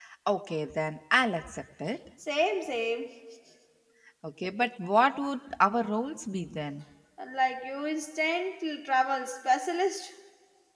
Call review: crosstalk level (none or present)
none